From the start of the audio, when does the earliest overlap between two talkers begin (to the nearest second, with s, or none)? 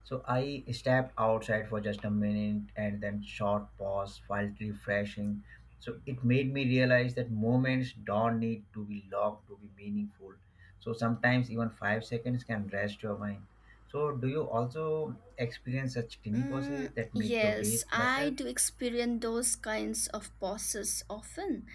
16 s